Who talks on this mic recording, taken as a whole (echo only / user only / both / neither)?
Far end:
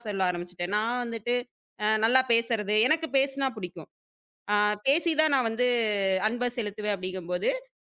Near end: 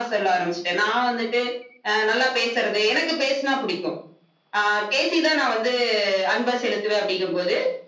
echo only